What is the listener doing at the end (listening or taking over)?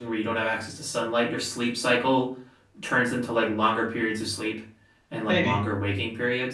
listening